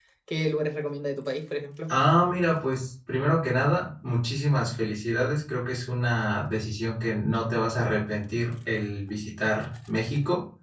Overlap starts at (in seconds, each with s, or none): none